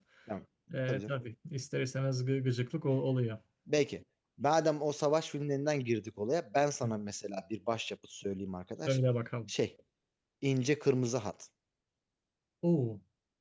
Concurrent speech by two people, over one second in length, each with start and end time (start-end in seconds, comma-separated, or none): none